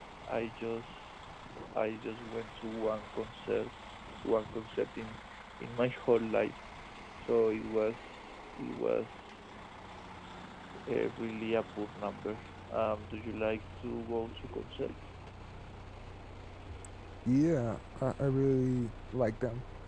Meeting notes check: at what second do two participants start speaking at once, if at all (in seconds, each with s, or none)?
none